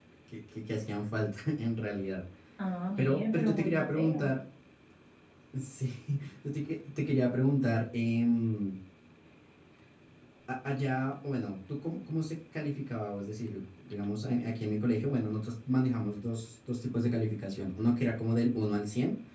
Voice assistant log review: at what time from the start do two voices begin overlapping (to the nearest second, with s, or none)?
3 s